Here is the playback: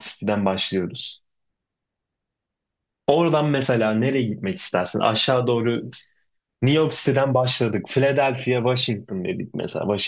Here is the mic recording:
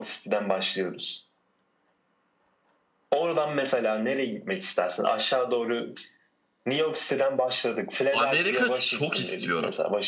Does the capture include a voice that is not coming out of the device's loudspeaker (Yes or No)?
Yes